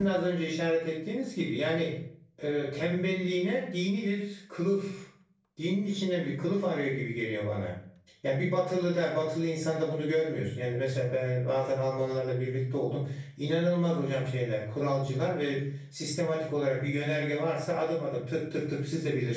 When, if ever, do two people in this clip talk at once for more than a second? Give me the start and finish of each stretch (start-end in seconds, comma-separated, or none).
none